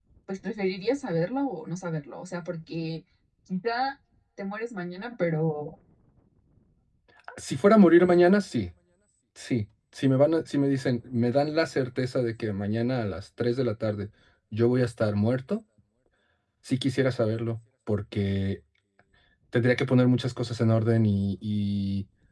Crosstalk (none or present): none